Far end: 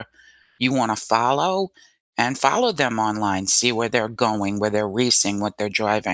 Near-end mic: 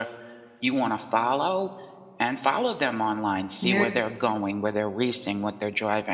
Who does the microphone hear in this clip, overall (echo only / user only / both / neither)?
both